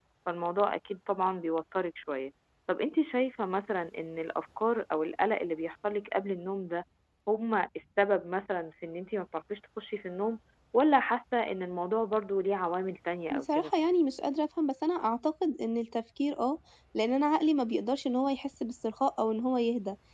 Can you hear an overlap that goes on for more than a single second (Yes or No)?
No